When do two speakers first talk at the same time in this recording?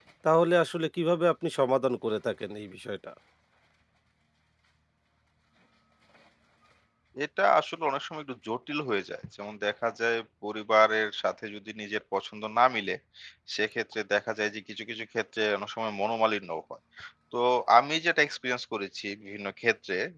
none

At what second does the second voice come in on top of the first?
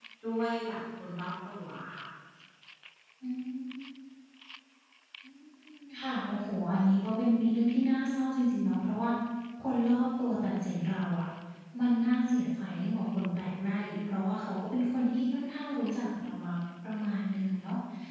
none

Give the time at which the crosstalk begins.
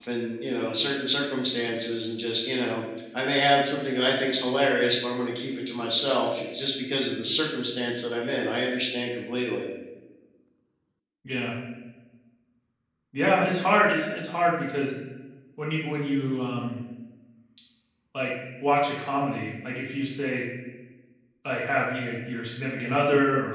none

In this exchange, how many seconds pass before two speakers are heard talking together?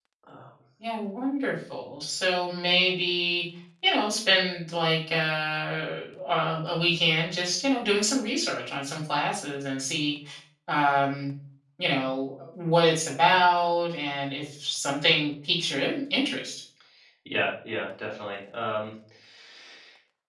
none

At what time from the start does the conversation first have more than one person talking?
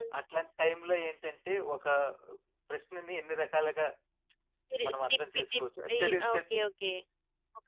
4.9 s

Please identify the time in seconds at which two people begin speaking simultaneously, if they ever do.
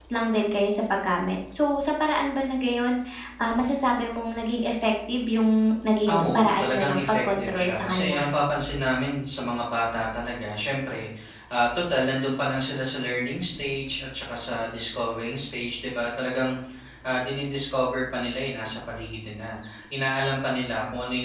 6.1 s

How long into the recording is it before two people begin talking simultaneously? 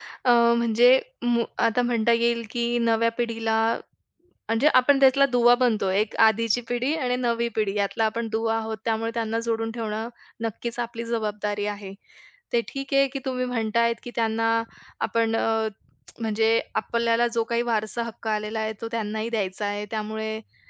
none

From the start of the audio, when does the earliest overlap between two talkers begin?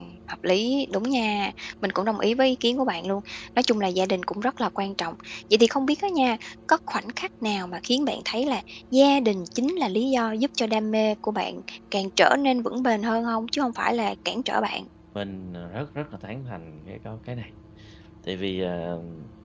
none

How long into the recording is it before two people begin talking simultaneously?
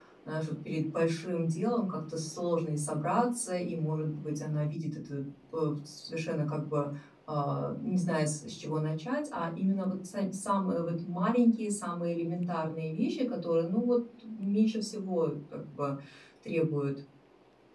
none

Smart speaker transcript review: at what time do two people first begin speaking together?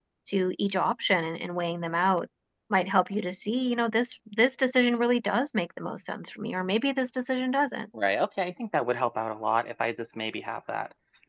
none

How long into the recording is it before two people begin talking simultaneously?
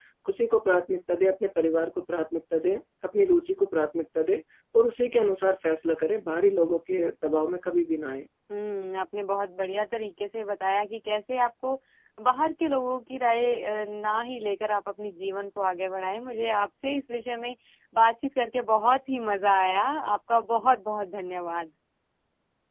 none

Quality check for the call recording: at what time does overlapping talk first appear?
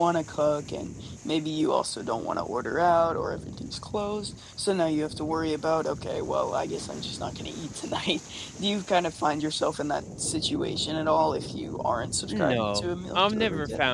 12.3 s

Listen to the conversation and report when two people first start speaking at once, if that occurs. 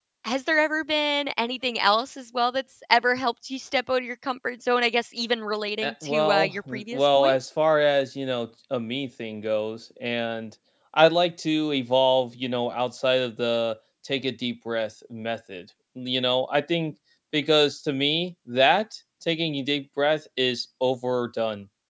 5.8 s

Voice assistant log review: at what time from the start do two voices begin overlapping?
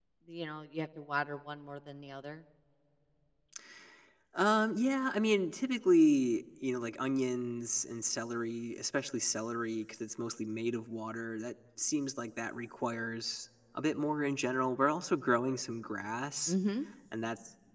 none

